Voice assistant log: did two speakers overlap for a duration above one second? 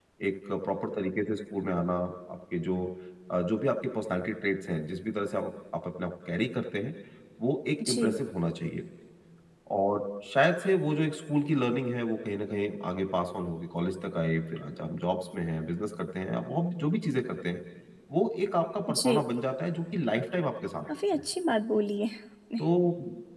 No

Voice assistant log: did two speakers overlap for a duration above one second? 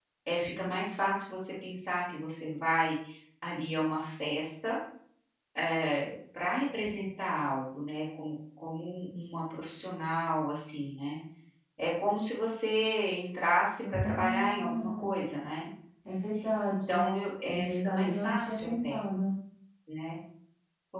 Yes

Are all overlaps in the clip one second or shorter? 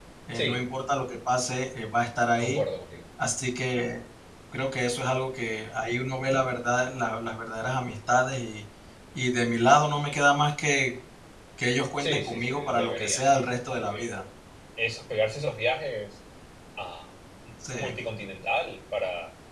No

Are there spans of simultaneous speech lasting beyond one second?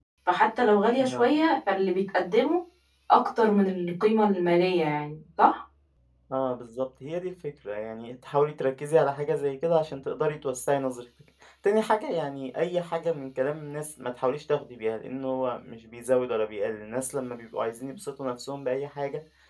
No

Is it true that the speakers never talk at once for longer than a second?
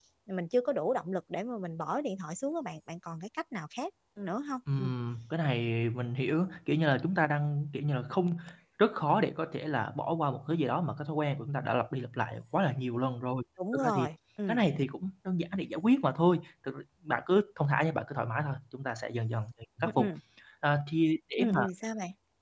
Yes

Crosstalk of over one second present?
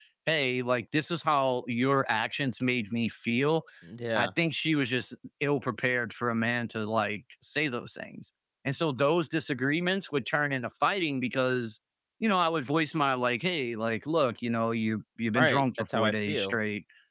Yes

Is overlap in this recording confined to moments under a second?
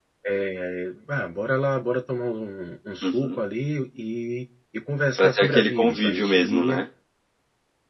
No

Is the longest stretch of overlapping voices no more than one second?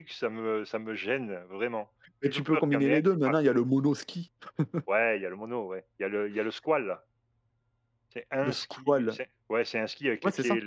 No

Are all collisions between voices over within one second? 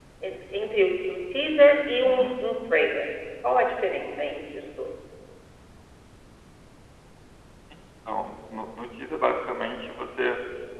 Yes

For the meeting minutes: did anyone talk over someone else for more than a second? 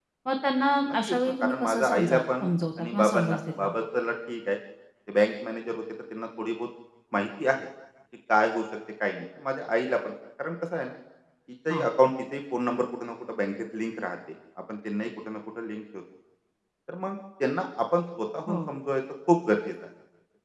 Yes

